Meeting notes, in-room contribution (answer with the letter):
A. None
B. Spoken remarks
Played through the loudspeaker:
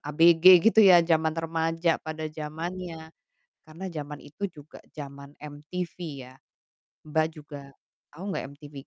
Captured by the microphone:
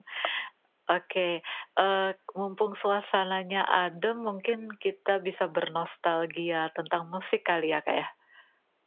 B